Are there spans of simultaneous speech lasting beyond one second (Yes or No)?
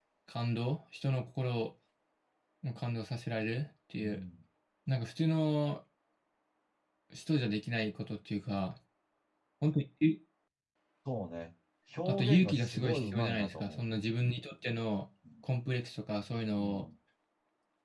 Yes